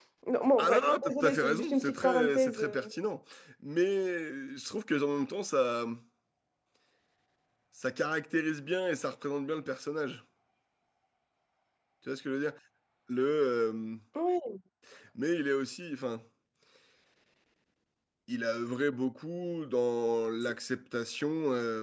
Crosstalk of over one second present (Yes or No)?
Yes